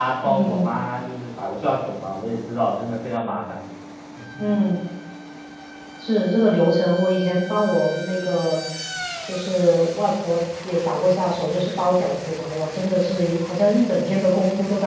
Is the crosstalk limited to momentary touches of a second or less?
Yes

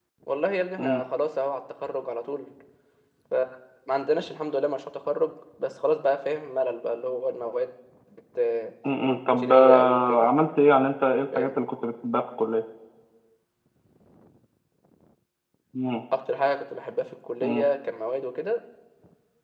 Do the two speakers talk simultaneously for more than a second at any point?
Yes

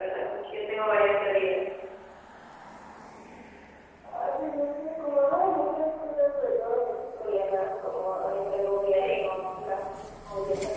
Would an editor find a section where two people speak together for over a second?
No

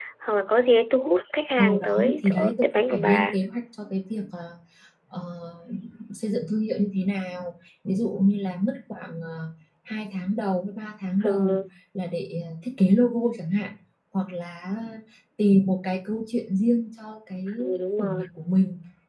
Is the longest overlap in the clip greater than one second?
Yes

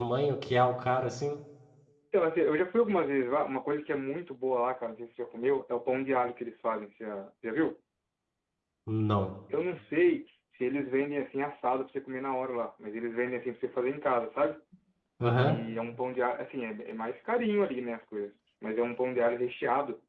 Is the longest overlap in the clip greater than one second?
No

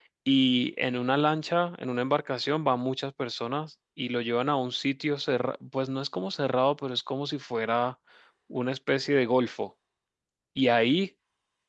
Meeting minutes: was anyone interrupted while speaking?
No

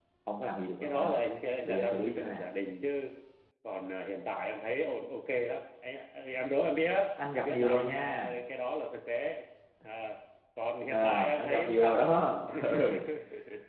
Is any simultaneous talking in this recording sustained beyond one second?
Yes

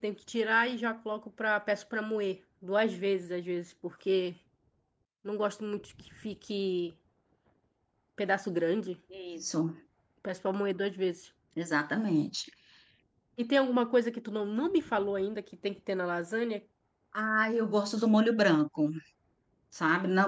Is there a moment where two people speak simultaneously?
No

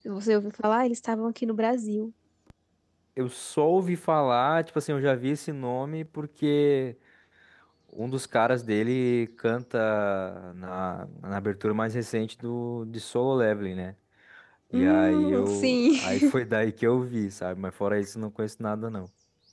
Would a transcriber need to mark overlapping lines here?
Yes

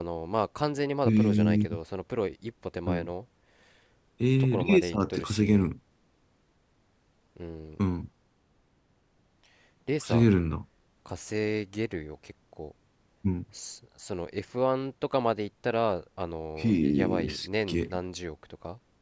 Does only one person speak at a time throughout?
No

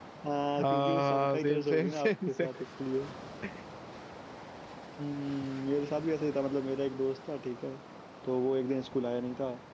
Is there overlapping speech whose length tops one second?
Yes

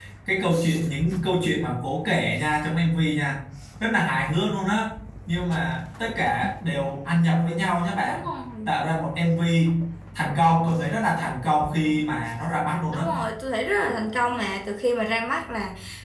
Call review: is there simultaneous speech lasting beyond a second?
No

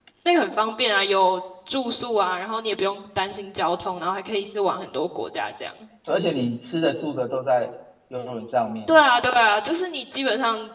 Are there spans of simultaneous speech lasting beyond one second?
No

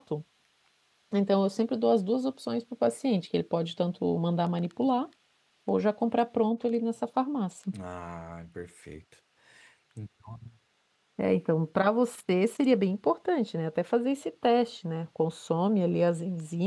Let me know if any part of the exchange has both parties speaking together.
No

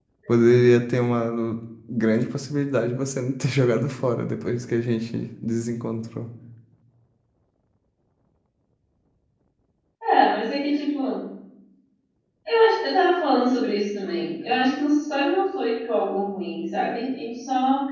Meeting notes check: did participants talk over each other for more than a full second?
No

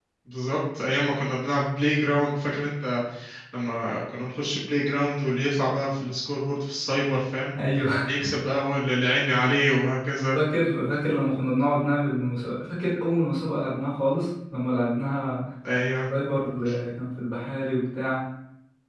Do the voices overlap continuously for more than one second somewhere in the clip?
No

